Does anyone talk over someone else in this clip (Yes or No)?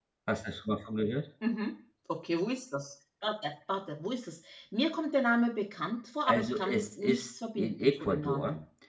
Yes